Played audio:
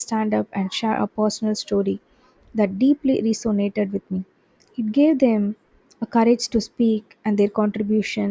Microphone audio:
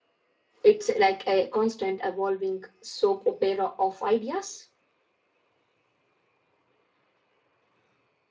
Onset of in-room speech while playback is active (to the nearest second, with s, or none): 1 s